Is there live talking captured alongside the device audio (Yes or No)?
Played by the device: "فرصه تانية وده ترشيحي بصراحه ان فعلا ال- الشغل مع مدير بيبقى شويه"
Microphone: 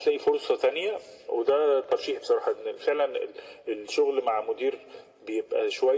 No